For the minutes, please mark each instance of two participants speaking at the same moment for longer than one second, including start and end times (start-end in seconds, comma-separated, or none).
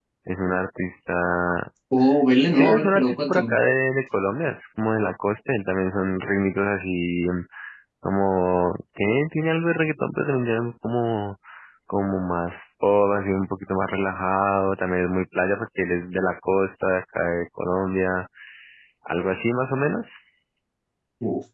2.4-3.6